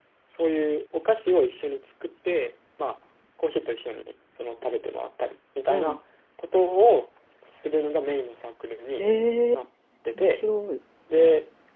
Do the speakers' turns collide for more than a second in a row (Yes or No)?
No